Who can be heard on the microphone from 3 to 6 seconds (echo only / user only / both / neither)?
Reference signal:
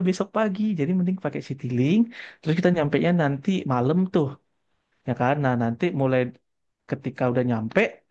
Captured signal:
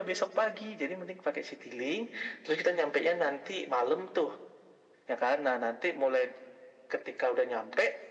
echo only